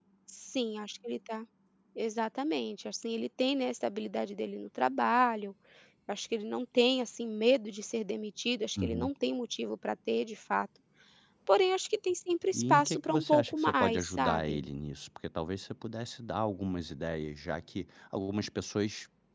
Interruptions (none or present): present